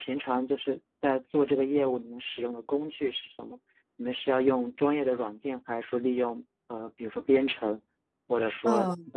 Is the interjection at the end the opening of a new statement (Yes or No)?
Yes